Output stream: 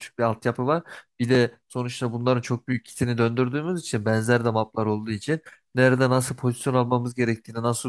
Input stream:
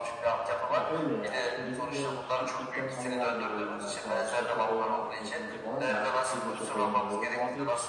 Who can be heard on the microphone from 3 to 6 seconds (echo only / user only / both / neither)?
both